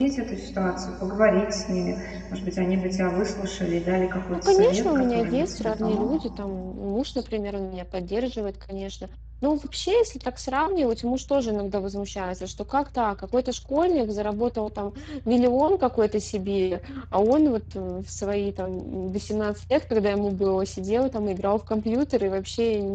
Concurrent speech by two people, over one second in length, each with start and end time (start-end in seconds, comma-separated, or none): 4.3-6.1